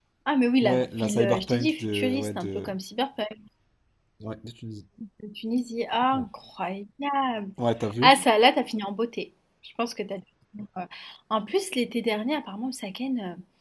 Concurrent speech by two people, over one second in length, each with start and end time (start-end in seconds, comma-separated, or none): 0.6-2.6